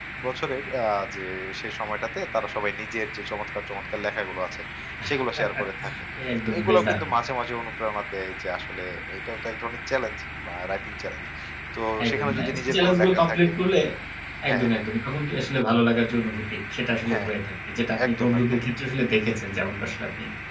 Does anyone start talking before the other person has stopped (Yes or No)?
Yes